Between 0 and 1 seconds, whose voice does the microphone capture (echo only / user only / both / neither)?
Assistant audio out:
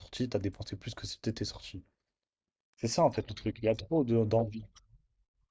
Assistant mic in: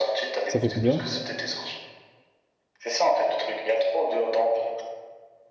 both